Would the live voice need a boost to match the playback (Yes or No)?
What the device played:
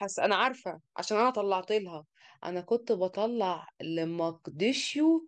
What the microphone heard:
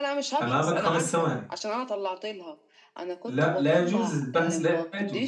No